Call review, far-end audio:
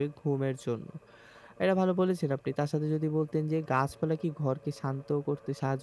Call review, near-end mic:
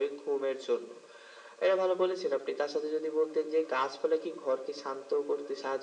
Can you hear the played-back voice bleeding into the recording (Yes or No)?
Yes